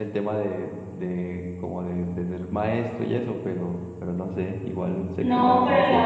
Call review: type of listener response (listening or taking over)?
taking over